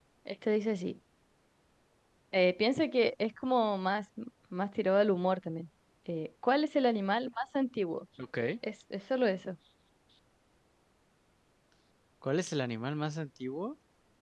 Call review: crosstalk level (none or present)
none